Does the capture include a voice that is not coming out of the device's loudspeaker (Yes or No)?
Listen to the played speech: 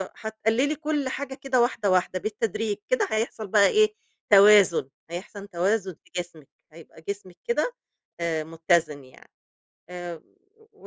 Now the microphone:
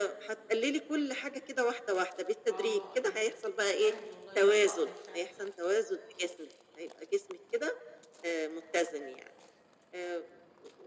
Yes